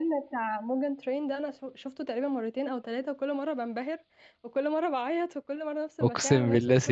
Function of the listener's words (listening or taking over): taking over